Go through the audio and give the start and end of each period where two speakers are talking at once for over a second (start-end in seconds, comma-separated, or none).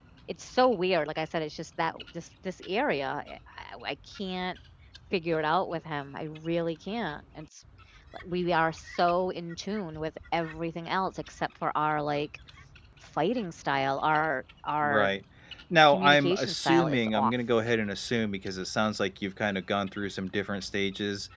15.9-17.3